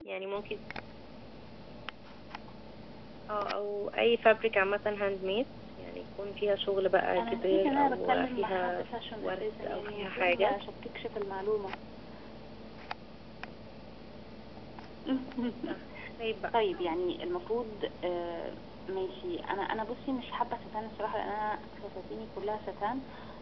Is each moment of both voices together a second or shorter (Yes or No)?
No